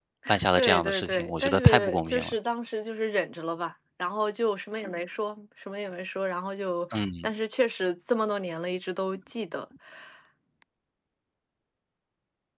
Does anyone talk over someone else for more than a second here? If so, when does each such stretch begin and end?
0.6-2.3

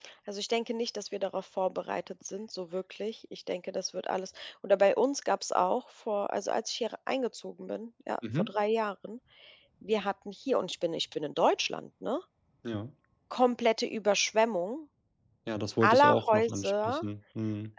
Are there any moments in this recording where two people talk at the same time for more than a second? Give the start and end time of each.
15.8-17.0

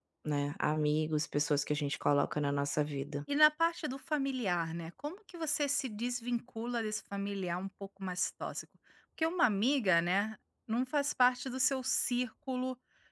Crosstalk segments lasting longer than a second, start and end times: none

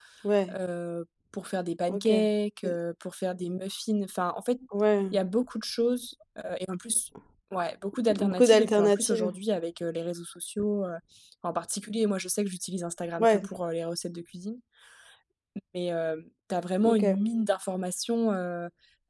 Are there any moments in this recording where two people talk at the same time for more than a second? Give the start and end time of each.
8.1-9.3

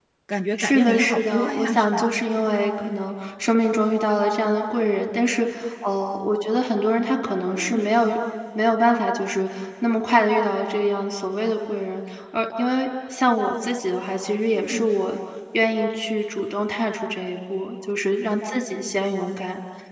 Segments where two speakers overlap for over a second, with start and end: 0.6-2.1

